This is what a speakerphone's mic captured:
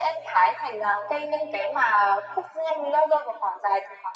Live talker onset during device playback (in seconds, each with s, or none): none